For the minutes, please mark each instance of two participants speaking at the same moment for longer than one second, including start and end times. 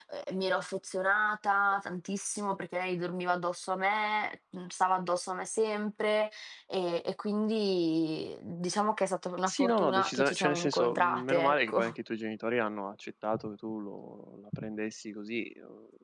9.5-11.8

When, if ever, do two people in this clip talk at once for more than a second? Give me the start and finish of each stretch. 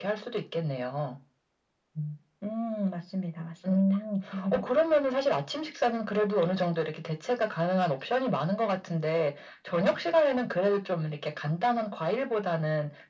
none

